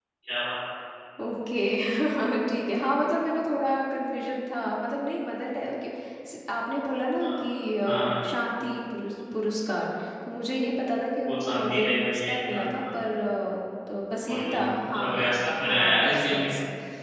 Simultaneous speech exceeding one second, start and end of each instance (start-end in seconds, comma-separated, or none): 11.2-12.8, 14.3-16.5